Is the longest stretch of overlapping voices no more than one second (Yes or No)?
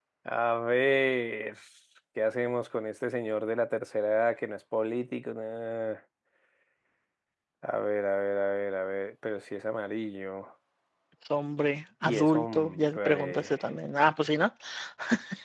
No